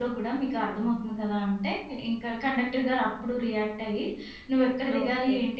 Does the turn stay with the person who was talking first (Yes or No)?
Yes